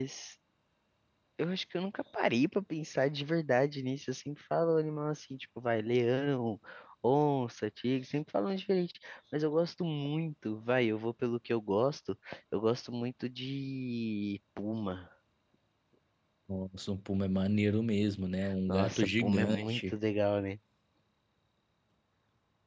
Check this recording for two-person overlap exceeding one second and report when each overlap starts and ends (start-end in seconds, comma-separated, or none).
18.7-19.9